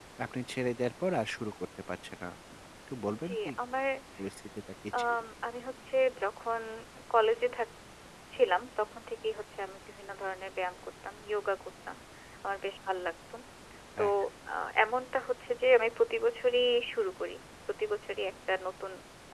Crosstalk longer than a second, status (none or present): none